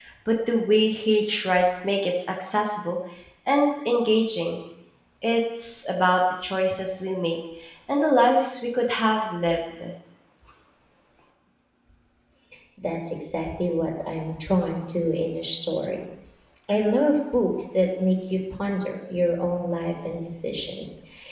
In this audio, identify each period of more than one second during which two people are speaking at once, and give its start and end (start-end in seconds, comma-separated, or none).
none